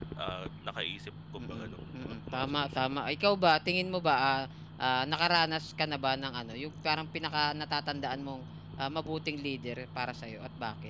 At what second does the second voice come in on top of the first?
1.4 s

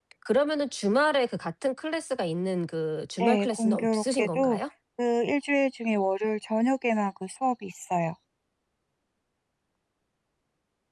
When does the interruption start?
3.2 s

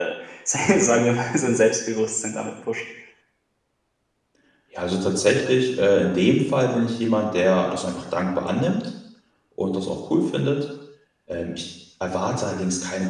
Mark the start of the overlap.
none

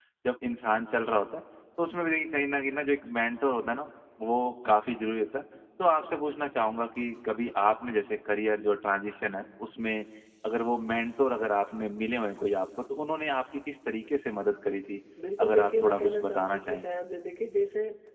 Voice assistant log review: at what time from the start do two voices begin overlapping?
15.4 s

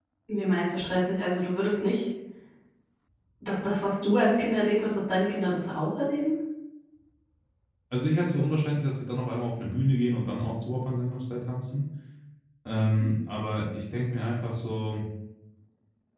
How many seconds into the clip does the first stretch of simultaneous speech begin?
none

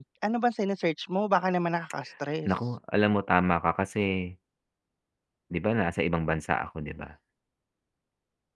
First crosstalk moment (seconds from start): none

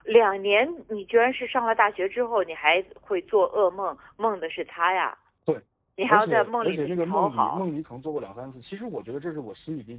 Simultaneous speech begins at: 6.1 s

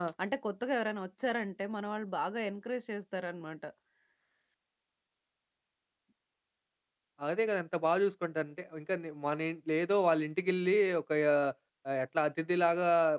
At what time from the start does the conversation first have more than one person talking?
none

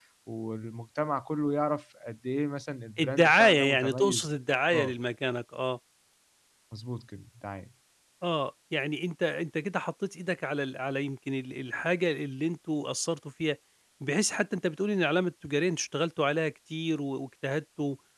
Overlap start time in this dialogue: 3.0 s

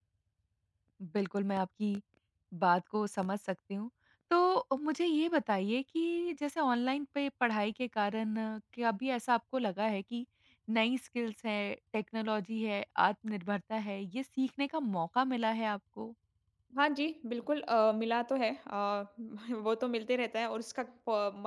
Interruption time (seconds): none

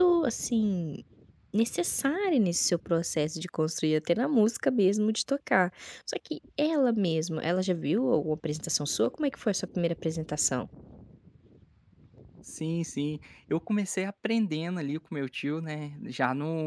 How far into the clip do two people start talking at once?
none

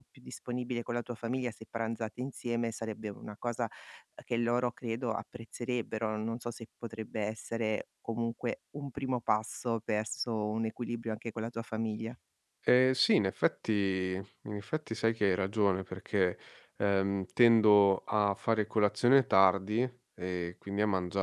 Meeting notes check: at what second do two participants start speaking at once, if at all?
none

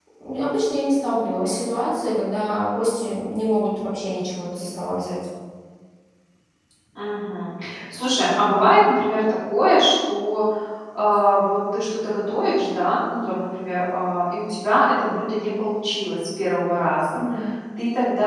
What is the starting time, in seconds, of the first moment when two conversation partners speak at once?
none

